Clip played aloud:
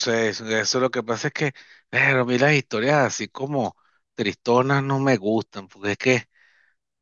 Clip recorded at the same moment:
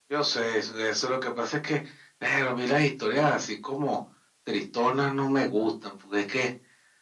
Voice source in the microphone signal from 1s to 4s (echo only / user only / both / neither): echo only